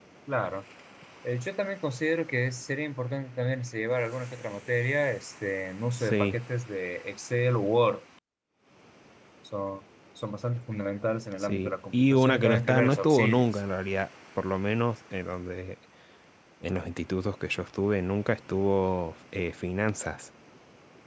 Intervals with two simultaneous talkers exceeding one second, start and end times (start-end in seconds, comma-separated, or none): 11.4-13.5